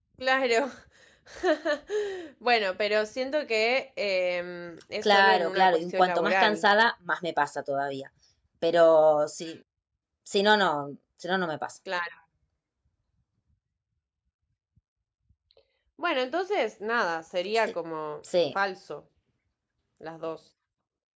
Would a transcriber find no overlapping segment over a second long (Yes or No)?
No